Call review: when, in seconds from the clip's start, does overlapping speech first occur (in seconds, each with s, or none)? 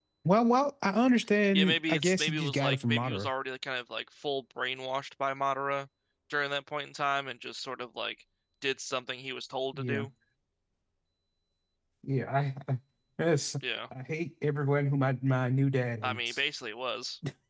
1.5 s